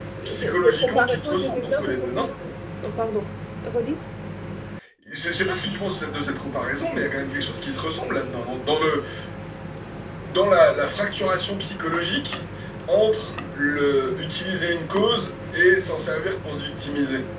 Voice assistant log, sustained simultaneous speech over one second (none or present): present